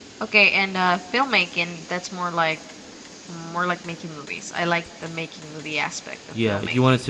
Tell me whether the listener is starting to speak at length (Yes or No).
Yes